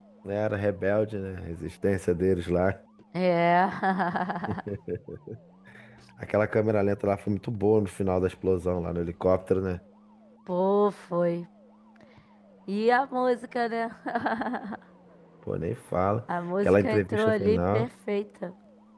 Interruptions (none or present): present